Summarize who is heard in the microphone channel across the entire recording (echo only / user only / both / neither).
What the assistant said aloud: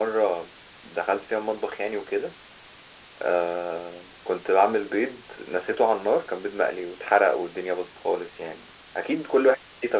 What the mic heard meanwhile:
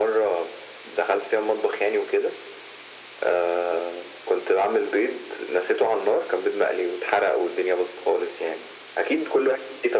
echo only